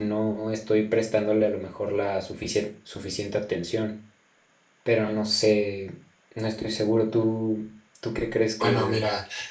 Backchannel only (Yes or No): No